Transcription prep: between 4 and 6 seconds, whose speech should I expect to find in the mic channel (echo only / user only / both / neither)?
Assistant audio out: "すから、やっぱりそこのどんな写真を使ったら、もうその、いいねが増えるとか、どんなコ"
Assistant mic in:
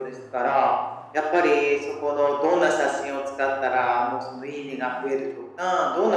echo only